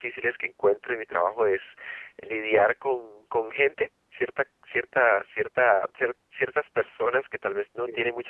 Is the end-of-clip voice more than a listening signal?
No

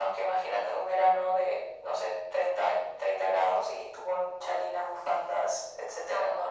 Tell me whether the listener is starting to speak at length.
Yes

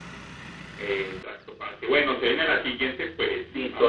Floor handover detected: Yes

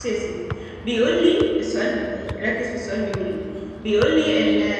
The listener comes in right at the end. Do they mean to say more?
No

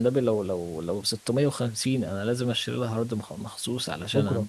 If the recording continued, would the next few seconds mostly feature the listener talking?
No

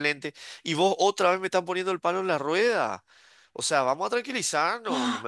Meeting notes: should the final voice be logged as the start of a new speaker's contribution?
Yes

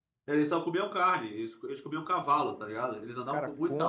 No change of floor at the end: No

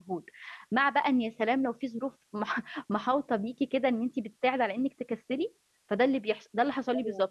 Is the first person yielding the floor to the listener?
No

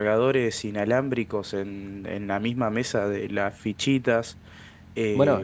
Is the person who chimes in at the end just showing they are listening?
No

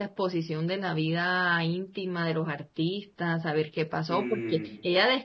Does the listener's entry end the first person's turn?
No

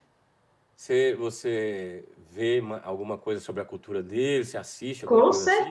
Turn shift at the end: Yes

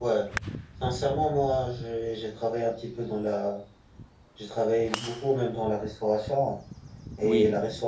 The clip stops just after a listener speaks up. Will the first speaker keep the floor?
Yes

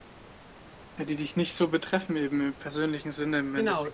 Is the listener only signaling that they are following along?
No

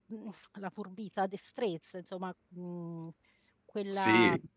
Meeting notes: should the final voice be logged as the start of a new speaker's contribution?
No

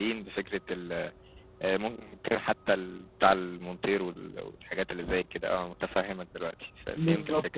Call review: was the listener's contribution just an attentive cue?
No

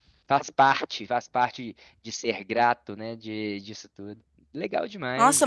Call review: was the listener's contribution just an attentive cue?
No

